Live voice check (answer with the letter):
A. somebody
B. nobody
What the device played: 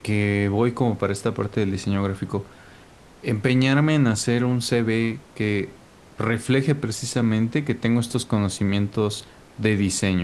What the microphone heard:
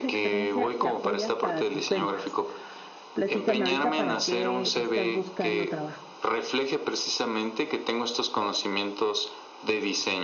A